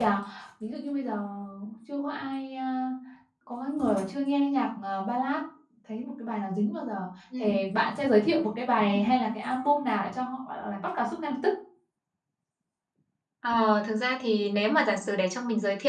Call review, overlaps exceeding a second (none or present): none